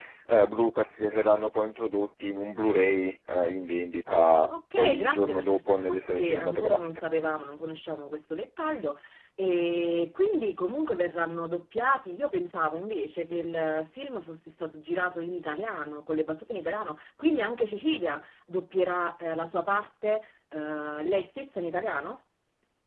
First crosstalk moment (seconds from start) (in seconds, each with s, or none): 4.8 s